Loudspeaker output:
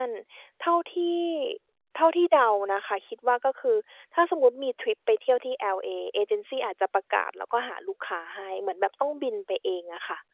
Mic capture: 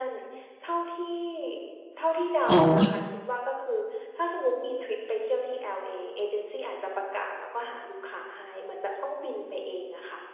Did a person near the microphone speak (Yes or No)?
Yes